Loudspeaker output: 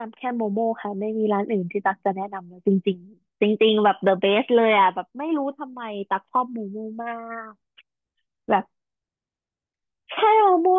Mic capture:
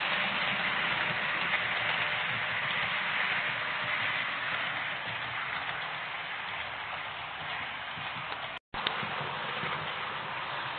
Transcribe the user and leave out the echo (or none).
none